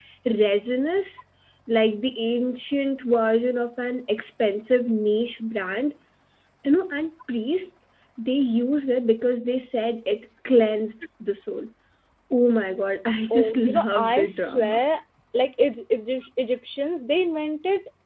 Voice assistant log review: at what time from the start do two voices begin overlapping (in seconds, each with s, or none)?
13.3 s